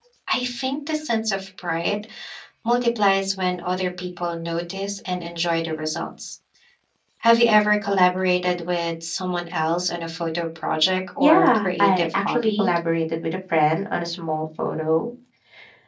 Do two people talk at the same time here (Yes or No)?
Yes